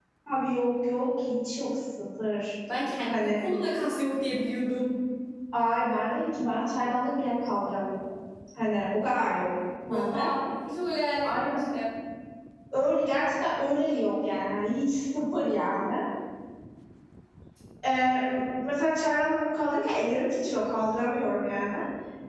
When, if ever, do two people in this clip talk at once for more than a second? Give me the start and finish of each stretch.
none

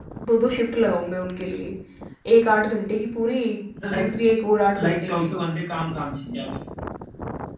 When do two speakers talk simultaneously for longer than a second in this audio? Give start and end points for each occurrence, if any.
none

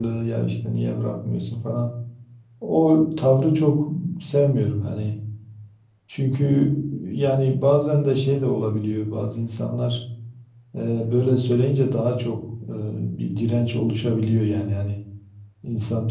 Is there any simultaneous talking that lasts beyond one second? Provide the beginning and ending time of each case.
none

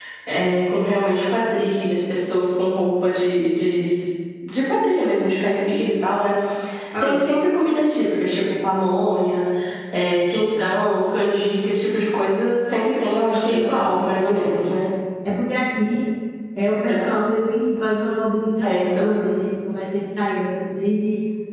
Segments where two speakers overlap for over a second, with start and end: 13.3-14.5

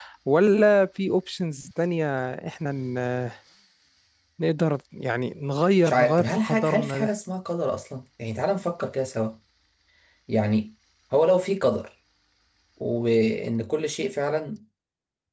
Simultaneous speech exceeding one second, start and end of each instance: 5.8-7.1

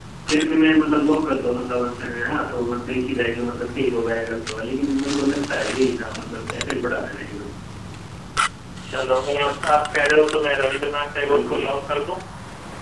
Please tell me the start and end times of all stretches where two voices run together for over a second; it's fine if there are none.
none

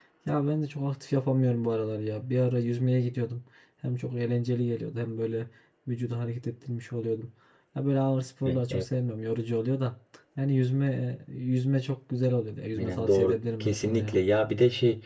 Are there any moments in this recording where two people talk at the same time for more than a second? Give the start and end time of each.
12.8-14.2

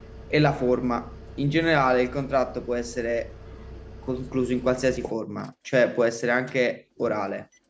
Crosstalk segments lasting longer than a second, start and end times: none

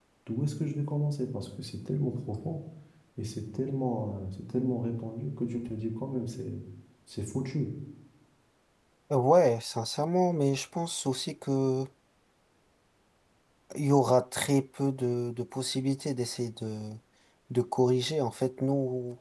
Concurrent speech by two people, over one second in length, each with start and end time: none

